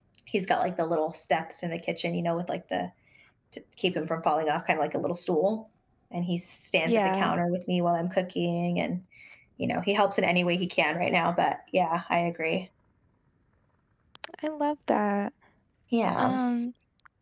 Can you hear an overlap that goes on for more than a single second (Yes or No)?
No